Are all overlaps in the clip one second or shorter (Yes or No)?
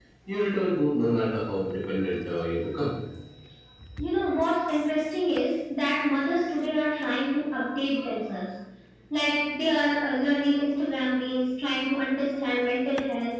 Yes